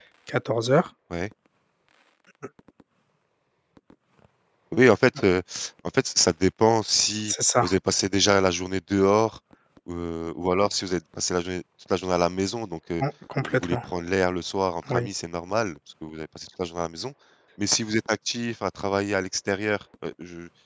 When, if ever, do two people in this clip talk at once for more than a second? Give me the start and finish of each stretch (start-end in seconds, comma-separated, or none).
none